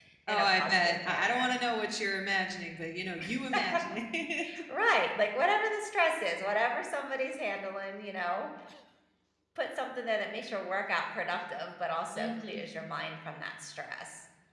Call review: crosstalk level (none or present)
present